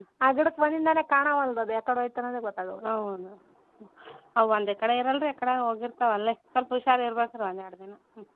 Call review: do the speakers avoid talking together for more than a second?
Yes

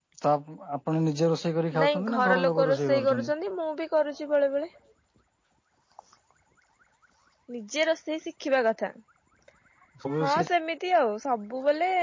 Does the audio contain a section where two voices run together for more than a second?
Yes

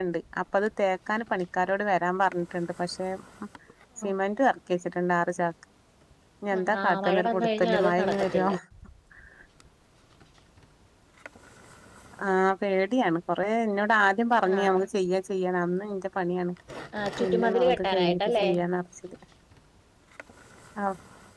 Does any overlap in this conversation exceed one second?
Yes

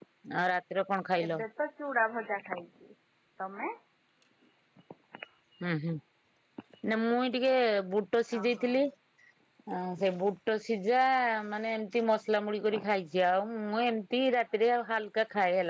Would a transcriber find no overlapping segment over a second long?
Yes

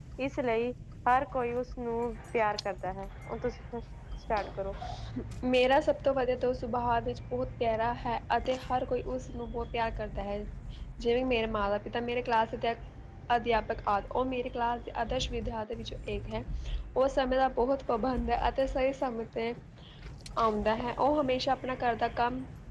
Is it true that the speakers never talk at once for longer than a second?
Yes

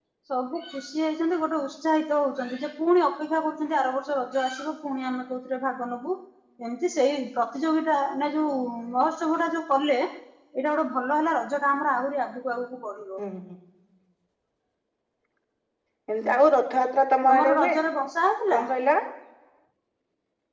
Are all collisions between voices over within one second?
Yes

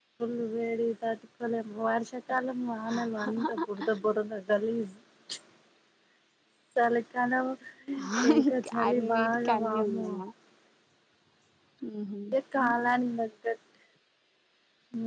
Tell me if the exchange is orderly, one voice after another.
No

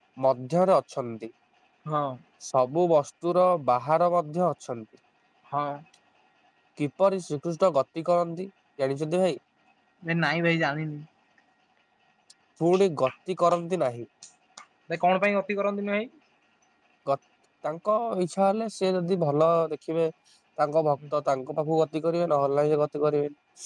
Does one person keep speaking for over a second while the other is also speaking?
No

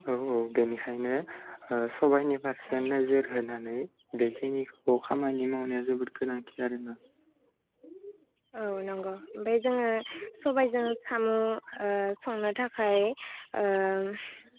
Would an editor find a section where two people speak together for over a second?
No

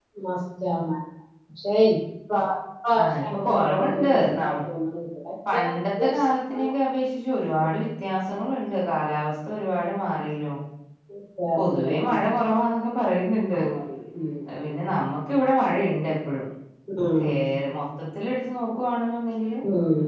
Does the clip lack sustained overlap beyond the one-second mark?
No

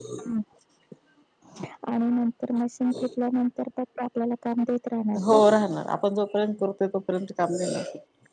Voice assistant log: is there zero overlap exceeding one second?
Yes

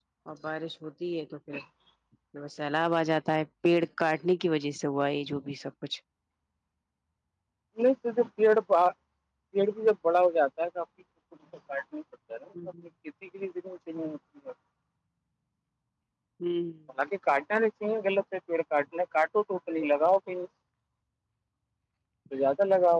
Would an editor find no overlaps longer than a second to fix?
Yes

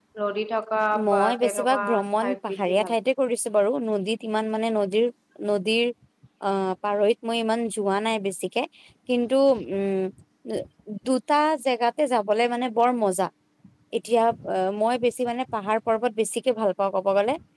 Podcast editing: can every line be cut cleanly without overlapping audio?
No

